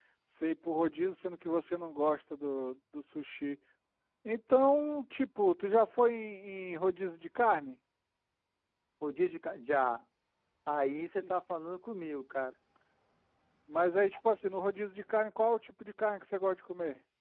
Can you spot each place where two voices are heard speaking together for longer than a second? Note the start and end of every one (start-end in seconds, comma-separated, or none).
none